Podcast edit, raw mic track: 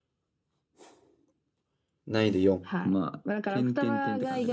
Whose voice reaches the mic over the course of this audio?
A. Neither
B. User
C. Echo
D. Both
D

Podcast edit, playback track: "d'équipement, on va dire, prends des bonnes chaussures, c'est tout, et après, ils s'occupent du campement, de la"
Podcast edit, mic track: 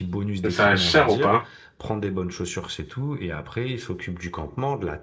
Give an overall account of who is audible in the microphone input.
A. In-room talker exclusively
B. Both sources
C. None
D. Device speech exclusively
B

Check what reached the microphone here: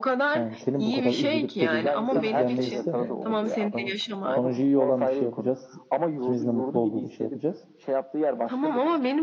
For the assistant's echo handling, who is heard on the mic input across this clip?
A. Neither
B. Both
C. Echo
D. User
B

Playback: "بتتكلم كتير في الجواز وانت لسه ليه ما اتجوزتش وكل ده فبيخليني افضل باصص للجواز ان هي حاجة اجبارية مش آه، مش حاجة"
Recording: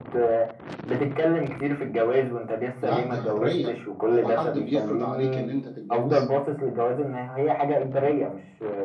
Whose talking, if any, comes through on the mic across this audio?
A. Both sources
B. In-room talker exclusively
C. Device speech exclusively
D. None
A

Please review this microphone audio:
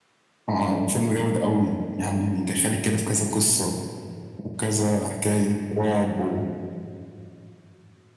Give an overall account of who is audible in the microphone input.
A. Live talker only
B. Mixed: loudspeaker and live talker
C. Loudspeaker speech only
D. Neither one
C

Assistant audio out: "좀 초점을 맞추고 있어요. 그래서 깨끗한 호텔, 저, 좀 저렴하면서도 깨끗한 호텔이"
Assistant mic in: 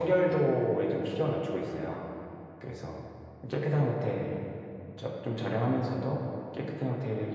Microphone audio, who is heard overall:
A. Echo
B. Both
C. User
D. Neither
A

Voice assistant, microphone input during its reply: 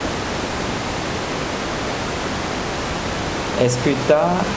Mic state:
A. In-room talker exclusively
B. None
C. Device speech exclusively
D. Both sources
A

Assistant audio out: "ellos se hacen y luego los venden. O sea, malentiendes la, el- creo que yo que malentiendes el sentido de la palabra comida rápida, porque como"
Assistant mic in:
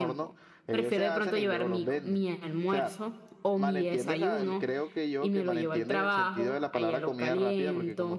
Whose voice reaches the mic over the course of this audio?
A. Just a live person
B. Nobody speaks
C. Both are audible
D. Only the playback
C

